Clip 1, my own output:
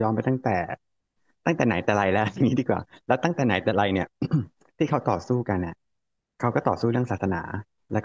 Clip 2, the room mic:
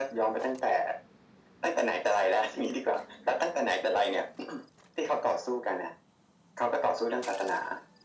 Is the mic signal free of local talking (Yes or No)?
Yes